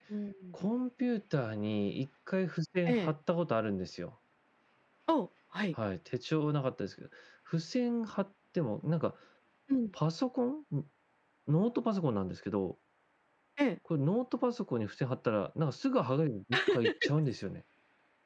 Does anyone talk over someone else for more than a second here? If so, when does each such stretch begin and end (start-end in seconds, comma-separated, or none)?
none